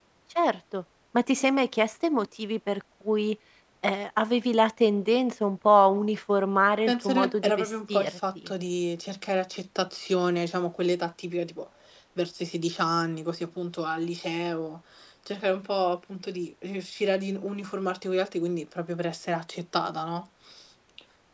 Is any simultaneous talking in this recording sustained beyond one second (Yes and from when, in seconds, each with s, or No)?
Yes, from 6.9 s